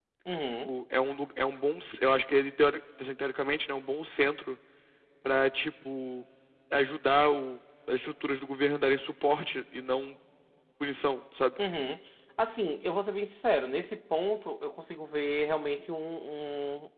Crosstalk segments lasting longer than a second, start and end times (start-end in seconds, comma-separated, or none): none